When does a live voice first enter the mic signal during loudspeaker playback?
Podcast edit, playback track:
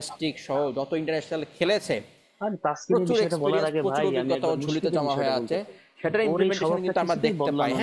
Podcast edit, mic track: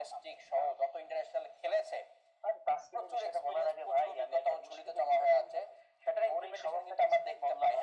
none

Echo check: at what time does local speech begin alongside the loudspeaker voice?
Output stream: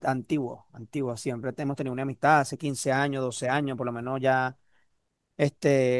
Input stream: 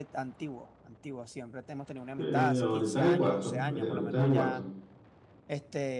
2.1 s

